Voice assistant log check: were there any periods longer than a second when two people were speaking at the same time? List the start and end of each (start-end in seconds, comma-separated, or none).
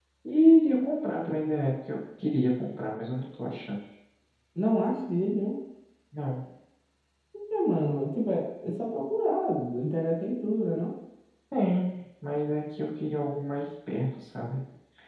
none